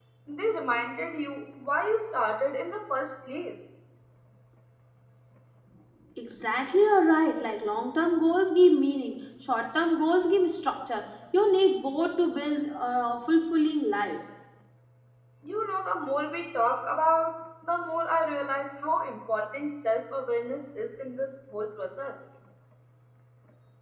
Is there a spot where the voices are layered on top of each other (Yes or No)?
No